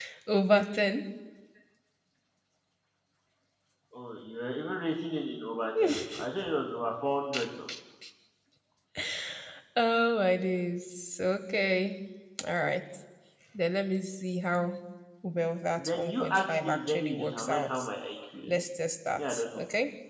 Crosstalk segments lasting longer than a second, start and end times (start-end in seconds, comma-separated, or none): 15.8-17.8